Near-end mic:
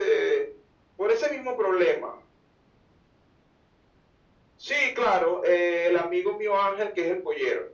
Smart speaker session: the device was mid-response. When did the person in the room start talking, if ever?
none

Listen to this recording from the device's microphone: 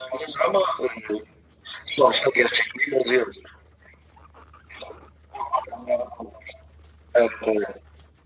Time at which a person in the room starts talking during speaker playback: none

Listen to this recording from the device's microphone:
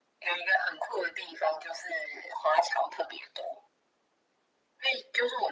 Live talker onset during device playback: none

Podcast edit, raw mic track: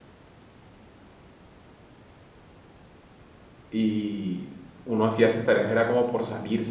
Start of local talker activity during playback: 3.7 s

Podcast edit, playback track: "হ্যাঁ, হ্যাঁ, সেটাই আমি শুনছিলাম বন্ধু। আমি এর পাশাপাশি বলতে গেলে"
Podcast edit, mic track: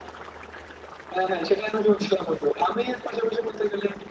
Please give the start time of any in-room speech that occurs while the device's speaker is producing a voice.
none

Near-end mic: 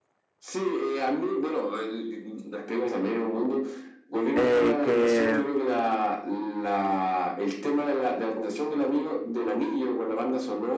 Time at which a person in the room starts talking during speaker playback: 4.3 s

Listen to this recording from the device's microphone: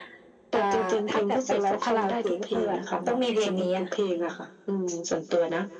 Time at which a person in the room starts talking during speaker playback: none

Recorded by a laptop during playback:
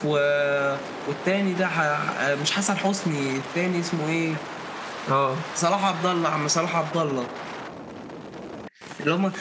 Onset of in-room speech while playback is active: 5.1 s

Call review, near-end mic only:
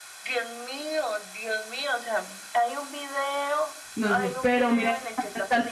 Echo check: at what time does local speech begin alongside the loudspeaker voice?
4.0 s

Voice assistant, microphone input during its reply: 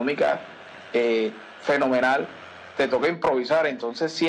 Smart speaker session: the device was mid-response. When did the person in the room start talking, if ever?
none

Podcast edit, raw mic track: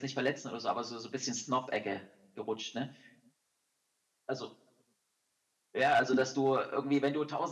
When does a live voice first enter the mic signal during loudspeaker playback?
none

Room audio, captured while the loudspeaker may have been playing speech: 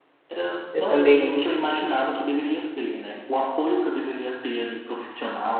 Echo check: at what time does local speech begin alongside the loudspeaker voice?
0.7 s

